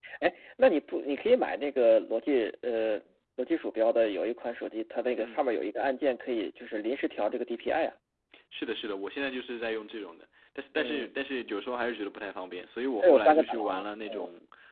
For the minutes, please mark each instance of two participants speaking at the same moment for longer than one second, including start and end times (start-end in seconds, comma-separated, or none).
13.0-14.2